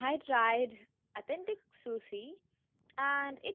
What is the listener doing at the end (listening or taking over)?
listening